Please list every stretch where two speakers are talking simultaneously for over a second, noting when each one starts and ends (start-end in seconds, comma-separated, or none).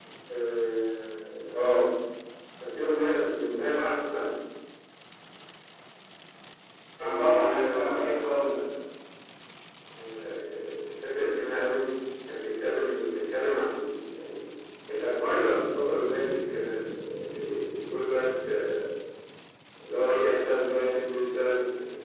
7.0-8.5